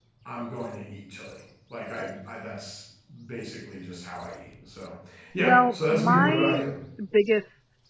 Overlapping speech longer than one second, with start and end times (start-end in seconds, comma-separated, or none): 5.4-6.6